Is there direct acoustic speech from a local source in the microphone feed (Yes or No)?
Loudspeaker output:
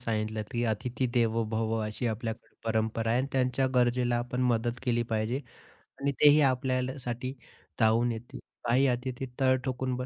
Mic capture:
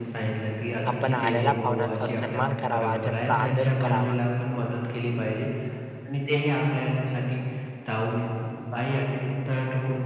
Yes